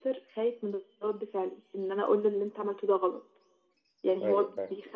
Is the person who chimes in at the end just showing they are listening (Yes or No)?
Yes